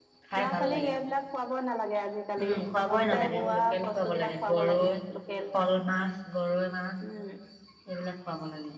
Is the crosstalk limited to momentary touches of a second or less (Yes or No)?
No